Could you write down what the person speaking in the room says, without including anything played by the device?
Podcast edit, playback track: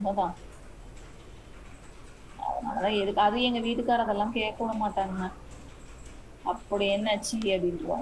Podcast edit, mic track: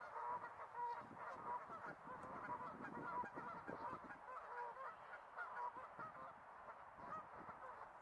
none

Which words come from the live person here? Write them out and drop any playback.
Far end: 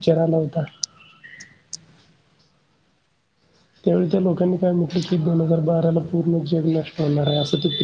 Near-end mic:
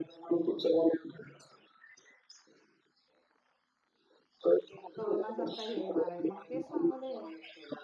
करोना सारखा हे येणार आहे मग तेच सांगवले

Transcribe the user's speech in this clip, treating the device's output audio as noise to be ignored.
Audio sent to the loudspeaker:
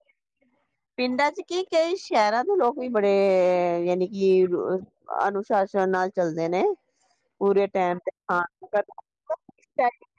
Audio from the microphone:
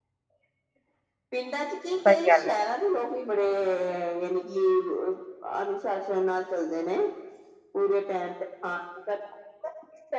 ਸਹੀ ਗੱਲ ਹੈ

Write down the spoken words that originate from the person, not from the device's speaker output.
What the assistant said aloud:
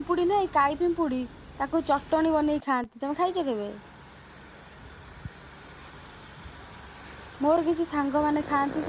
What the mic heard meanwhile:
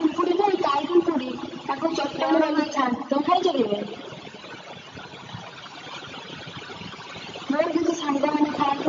ବଡ ମାଛ

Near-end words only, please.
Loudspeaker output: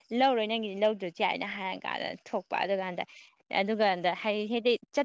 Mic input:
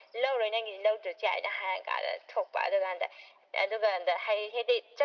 none

